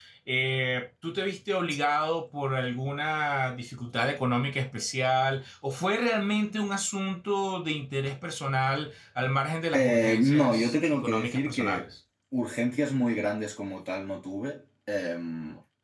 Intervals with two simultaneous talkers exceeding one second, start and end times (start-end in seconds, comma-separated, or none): 9.7-11.8